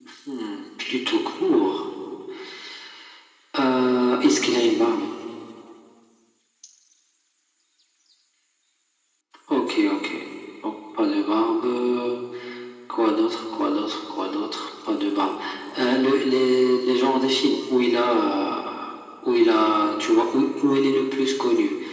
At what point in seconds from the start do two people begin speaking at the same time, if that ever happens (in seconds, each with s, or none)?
3.6 s